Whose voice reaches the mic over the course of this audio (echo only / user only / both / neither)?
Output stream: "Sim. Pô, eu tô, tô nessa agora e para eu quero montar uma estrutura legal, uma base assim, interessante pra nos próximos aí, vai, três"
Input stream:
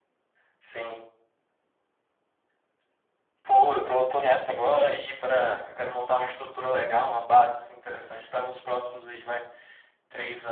echo only